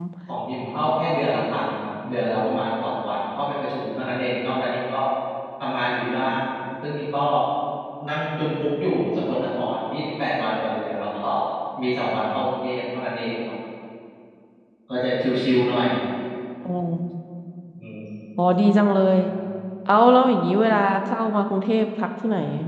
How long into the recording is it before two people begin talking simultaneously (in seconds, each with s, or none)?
none